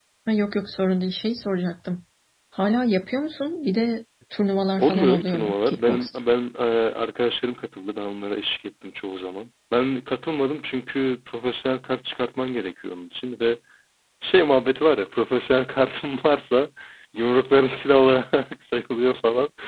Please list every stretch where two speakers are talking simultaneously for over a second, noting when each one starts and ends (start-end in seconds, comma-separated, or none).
4.8-6.2